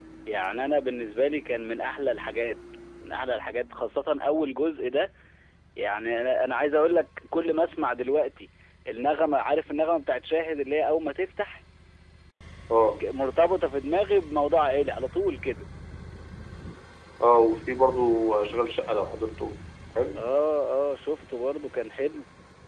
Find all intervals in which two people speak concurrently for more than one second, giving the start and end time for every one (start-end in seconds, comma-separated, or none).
none